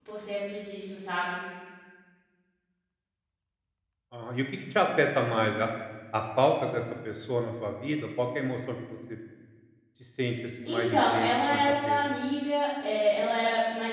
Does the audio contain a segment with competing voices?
Yes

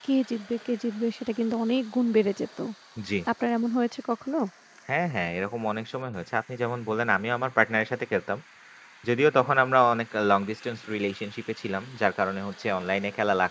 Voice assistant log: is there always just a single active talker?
Yes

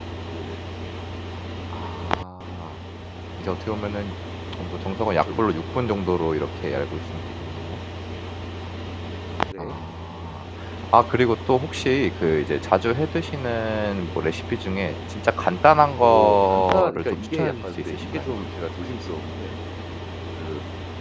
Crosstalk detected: Yes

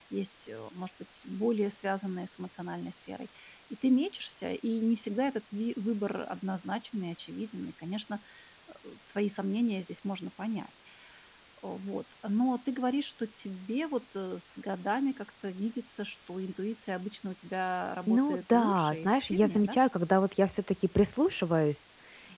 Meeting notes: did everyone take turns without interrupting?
No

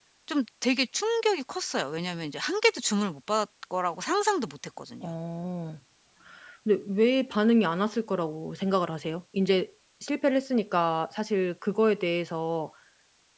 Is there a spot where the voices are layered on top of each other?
No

